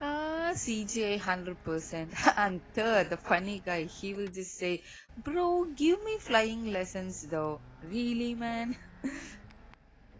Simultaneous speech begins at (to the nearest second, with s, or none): none